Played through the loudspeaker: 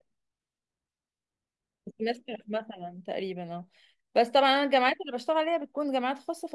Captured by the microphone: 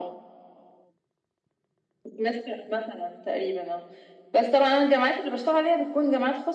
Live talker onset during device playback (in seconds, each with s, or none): none